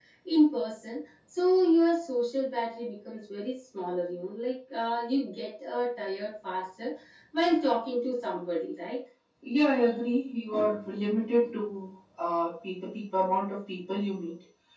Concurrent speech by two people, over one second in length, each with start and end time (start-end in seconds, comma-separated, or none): none